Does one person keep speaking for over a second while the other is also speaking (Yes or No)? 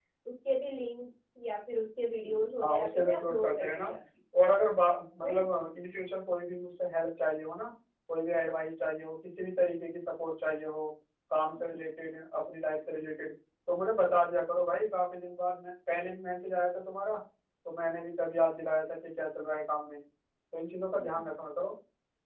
Yes